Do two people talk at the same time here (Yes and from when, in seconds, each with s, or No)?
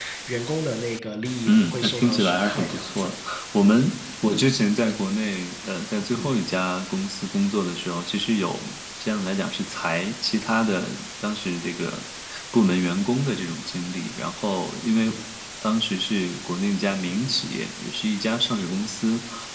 Yes, from 1.5 s